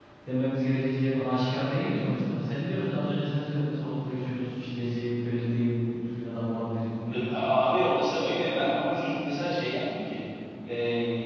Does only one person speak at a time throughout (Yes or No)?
Yes